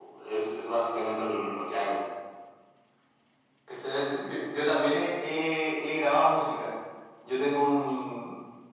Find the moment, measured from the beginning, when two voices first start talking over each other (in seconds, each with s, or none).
none